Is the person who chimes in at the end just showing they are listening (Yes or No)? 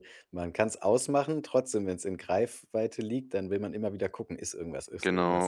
No